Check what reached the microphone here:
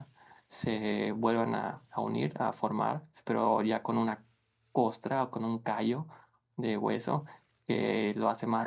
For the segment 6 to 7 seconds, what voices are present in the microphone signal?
user only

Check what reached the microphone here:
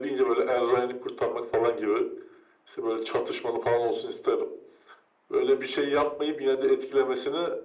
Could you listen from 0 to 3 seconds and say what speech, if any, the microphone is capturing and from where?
echo only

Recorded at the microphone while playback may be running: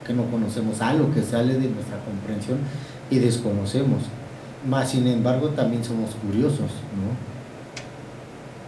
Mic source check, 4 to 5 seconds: user only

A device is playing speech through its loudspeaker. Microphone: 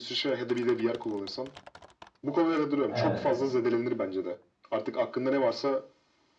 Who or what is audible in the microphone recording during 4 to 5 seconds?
echo only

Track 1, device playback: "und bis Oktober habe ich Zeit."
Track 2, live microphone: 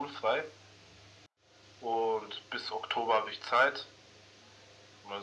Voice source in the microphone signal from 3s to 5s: echo only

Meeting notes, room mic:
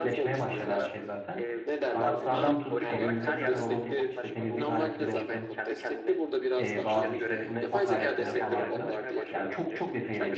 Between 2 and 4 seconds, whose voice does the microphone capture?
both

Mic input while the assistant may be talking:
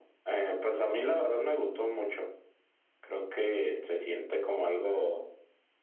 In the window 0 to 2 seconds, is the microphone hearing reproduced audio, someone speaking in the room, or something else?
echo only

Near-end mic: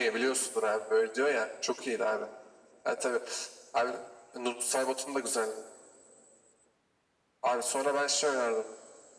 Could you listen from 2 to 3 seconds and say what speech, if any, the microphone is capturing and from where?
echo only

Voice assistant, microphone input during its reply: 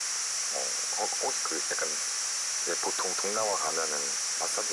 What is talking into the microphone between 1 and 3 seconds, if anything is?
echo only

